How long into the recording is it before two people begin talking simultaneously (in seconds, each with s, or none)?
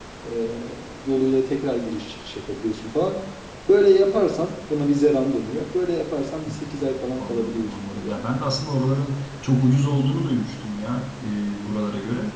6.5 s